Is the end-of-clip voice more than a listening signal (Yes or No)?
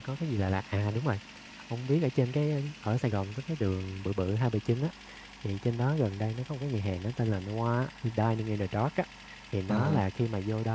No